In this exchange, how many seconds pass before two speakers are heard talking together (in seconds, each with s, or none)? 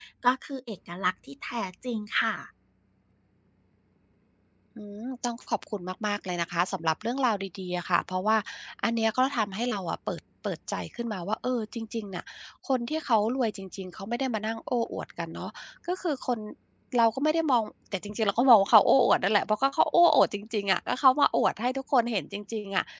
none